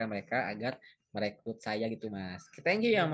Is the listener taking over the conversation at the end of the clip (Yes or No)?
Yes